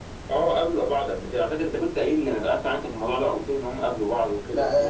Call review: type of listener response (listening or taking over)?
taking over